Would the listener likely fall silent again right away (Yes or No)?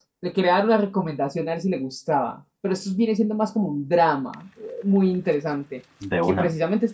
Yes